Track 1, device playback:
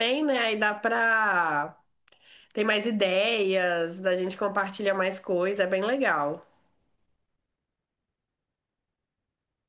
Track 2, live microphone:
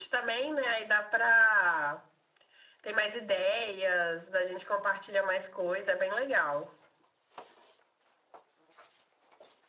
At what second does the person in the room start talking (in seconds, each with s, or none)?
none